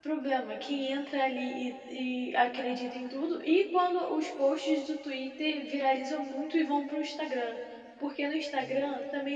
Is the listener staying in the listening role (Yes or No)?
Yes